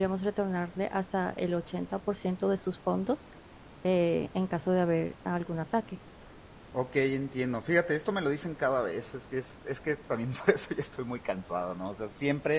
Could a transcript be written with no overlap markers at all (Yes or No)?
Yes